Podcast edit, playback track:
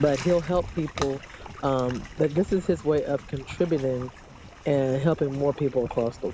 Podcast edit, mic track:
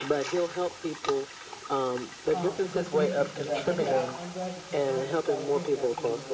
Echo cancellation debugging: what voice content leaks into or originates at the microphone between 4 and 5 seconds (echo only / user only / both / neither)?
both